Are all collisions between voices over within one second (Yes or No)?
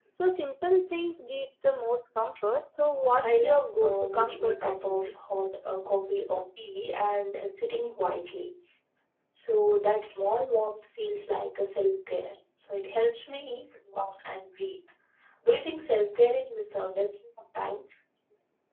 No